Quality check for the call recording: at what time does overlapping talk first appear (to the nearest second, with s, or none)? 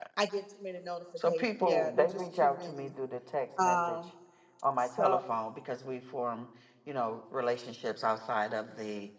1 s